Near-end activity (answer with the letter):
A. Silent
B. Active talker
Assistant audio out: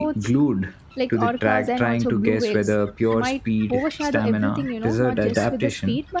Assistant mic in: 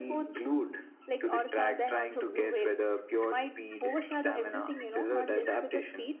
A